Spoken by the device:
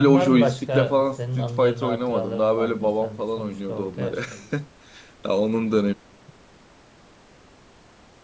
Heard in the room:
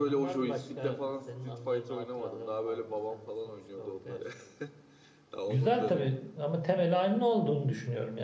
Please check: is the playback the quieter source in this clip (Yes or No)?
Yes